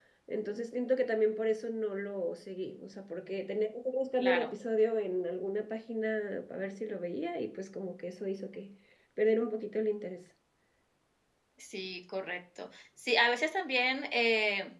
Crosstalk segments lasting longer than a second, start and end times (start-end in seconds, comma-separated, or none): none